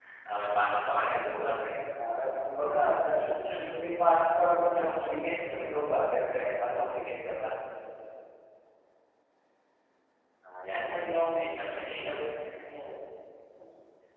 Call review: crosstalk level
present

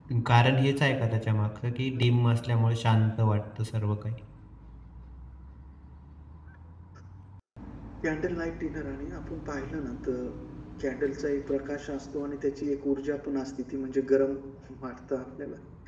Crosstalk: none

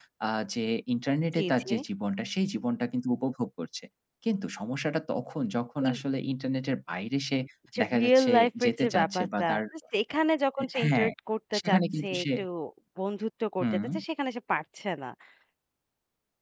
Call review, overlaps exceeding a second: present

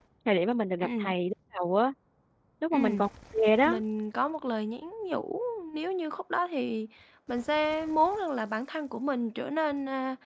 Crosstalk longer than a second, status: none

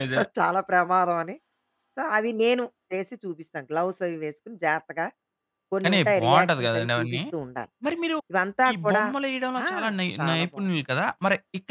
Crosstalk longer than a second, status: present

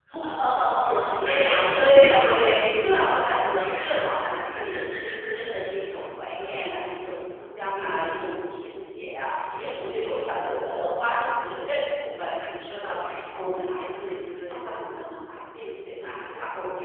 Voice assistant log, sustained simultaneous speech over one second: present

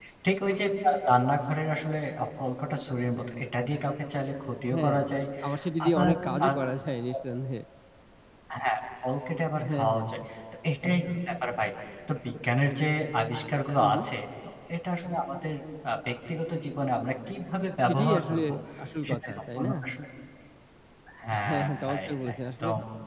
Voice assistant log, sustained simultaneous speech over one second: present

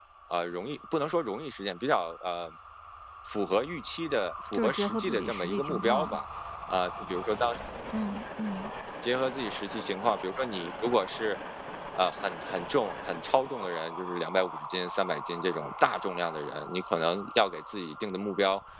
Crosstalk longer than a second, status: present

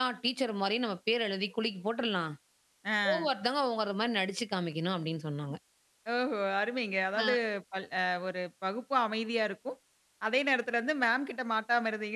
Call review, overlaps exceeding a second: none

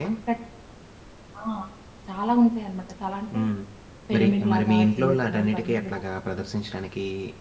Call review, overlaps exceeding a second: present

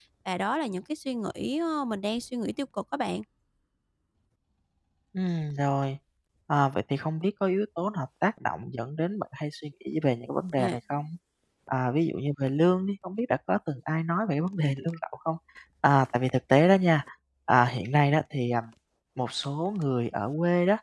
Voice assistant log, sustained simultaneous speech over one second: none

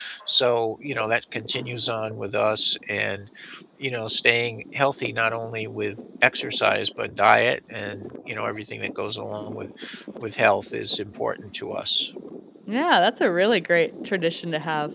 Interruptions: none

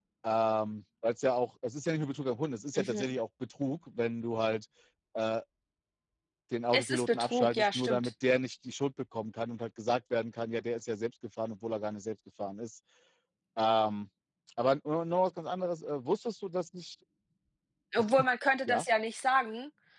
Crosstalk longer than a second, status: present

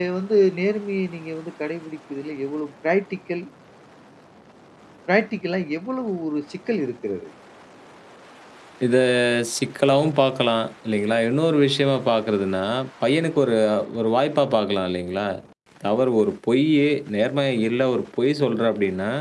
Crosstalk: none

